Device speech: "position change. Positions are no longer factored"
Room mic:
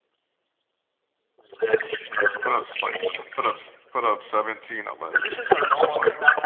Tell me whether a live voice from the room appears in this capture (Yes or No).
Yes